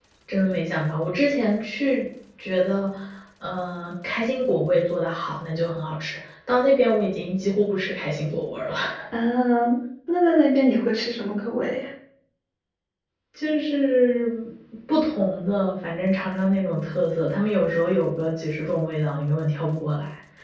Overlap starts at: none

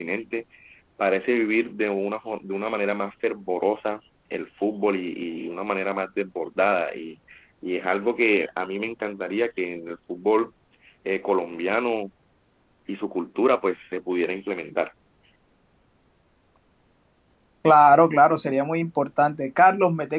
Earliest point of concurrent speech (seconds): none

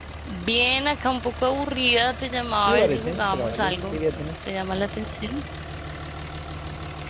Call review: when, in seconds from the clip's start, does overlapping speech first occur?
2.7 s

